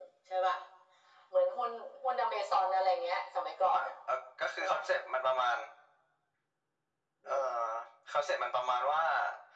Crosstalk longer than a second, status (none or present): none